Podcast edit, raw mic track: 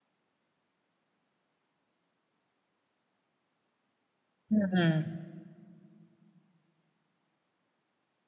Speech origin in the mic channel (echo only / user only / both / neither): user only